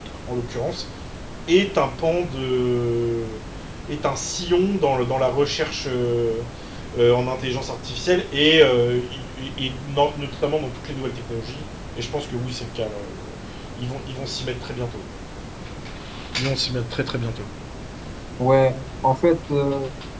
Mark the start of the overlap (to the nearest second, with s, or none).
none